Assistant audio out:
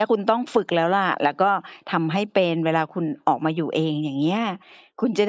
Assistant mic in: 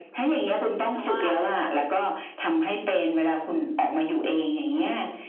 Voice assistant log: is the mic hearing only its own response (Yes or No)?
No